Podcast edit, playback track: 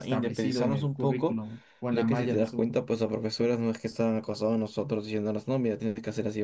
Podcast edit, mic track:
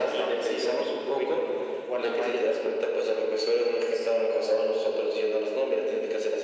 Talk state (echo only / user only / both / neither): echo only